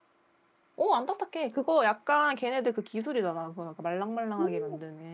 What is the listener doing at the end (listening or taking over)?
taking over